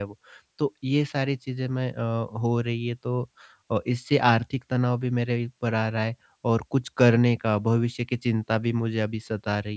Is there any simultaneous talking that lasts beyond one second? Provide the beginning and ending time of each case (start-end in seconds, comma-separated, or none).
none